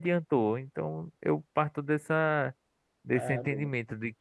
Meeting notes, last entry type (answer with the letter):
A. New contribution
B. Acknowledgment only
B